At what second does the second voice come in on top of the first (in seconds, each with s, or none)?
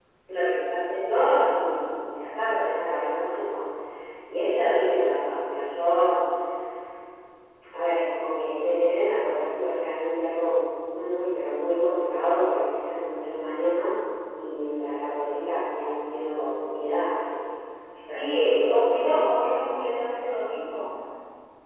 18.1 s